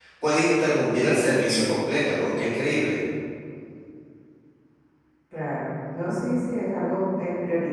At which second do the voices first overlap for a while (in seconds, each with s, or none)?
none